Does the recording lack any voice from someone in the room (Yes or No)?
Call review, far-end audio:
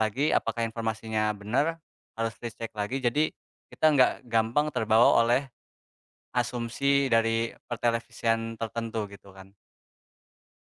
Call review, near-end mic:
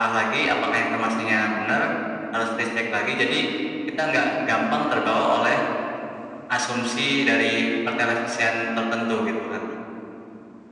Yes